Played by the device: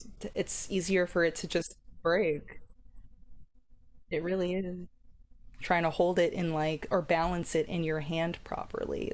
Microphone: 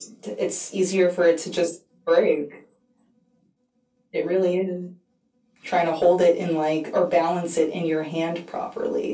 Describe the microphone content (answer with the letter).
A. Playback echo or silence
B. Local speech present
A